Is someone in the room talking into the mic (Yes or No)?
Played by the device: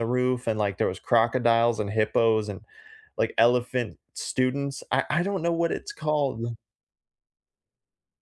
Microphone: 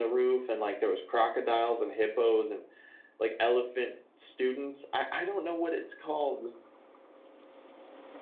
No